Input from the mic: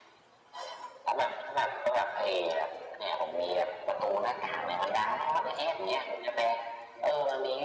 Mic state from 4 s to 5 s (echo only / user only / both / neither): echo only